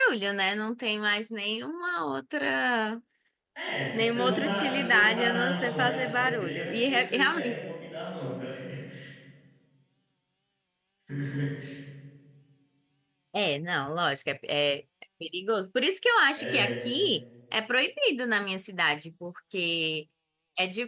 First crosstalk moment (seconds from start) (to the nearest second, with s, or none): 4 s